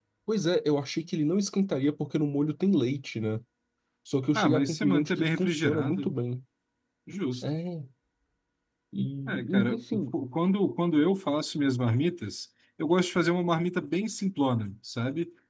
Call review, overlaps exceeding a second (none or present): present